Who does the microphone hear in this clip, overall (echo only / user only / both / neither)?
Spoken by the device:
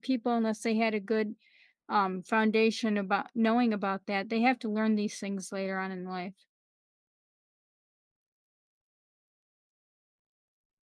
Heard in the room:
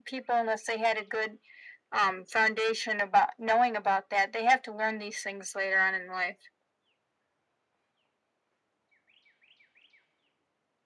echo only